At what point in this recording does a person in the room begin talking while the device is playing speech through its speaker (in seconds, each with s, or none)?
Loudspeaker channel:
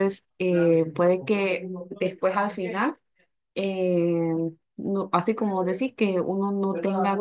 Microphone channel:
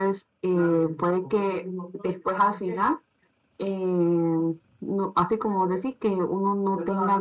none